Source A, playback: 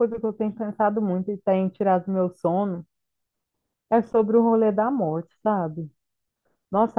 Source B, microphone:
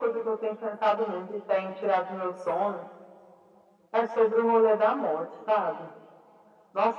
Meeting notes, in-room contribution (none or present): none